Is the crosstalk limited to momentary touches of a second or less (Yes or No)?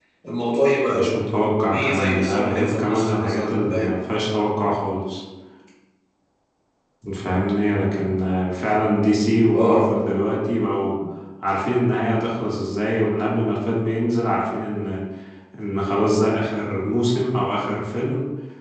No